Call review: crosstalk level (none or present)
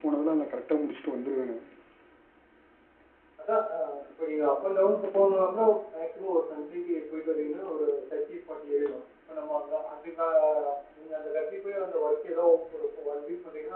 none